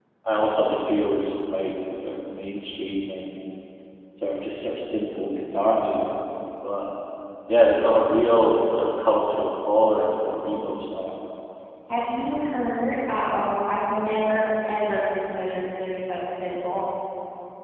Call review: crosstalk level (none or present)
none